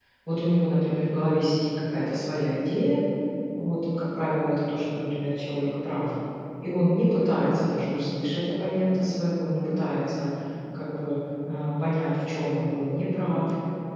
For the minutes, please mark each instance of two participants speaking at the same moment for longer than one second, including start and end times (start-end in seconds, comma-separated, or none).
none